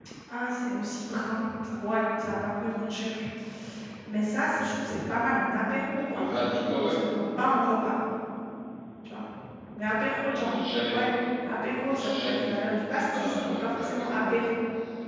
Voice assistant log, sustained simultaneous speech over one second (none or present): present